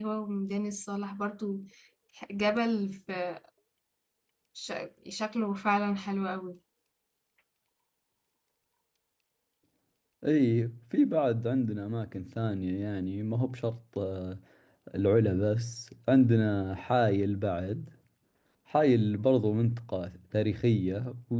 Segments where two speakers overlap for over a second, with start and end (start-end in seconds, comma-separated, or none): none